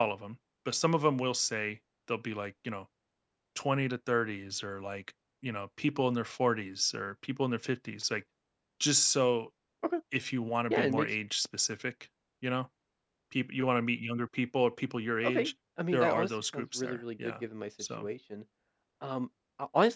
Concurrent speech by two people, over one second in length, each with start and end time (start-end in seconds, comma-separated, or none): 15.9-17.4